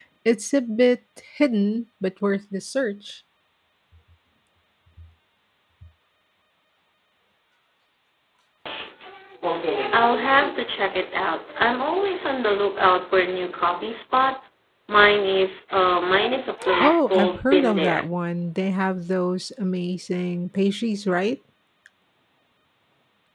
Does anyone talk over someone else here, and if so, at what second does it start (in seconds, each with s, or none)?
16.8 s